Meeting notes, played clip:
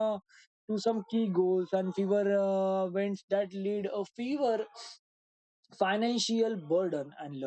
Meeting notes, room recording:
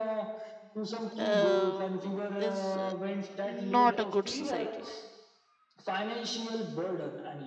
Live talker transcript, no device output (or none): um, is uh, not a good society.